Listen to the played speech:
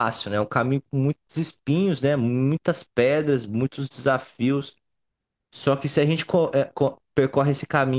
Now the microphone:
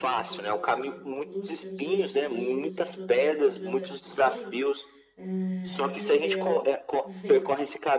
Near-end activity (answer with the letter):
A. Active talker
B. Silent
A